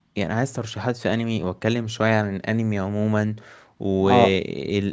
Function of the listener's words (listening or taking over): listening